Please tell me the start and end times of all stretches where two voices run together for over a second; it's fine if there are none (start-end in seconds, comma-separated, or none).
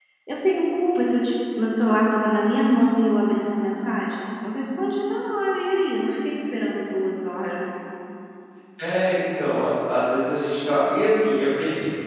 none